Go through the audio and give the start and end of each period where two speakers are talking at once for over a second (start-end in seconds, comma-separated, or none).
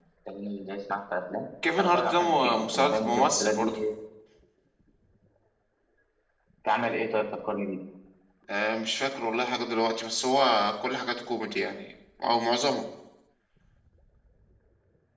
1.8-3.8